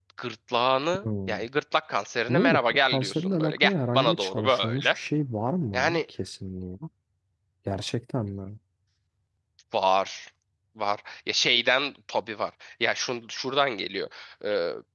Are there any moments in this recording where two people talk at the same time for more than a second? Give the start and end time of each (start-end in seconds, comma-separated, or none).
2.3-5.0